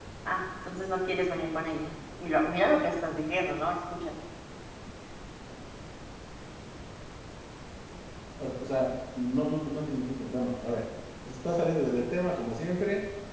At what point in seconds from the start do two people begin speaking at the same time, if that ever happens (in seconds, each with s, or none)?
none